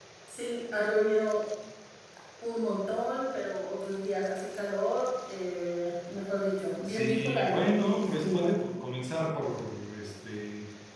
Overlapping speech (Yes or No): Yes